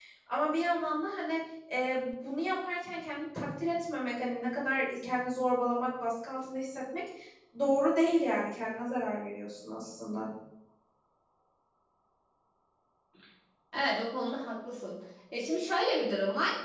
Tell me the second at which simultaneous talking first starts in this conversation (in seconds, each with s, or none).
none